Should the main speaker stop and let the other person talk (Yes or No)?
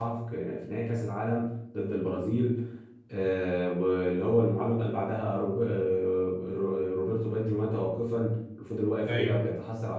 No